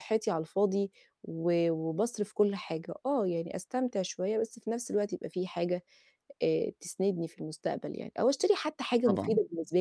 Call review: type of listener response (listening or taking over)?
listening